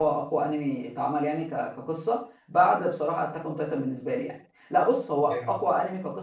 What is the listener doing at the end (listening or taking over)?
listening